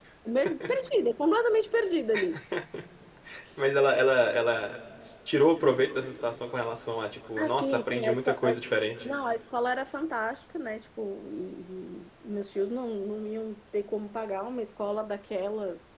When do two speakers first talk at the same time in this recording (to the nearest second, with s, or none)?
7 s